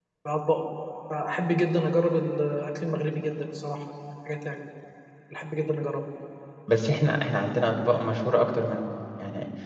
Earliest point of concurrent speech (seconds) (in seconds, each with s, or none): none